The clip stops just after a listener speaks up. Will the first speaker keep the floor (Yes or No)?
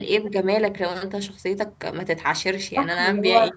No